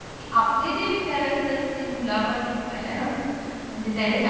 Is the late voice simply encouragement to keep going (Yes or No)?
Yes